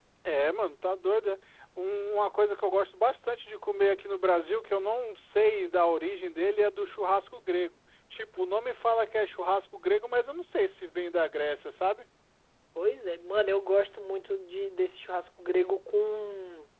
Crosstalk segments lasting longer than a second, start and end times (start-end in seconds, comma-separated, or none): none